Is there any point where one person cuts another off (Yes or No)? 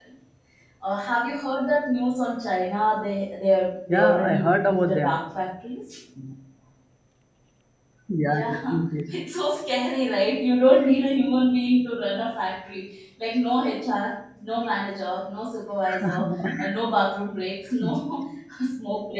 Yes